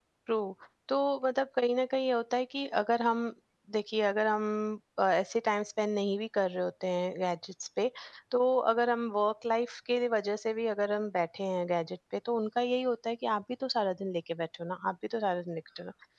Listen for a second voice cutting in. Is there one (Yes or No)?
No